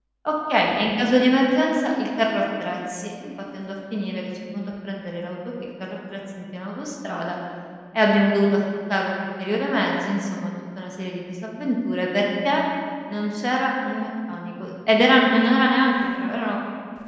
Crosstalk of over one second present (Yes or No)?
No